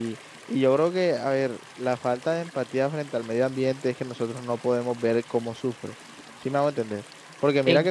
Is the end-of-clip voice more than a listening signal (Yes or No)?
No